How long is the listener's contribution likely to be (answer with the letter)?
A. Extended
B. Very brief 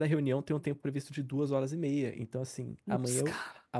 B